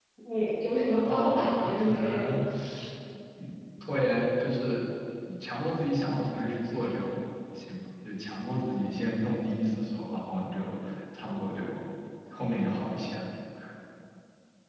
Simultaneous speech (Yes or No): Yes